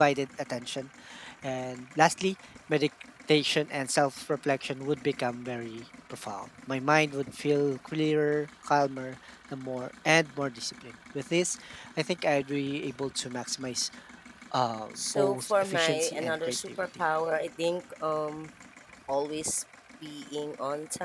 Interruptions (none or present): present